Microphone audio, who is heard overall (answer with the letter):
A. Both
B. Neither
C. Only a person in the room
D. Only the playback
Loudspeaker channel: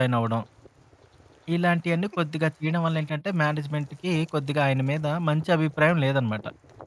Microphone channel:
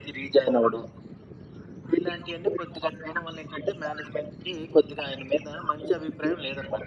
D